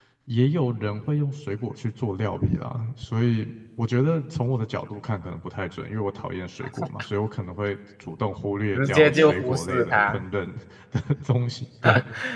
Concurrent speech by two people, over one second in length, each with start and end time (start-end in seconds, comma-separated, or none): 8.7-10.2